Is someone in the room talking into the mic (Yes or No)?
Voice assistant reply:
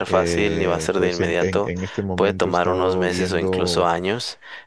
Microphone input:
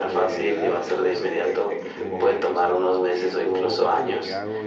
Yes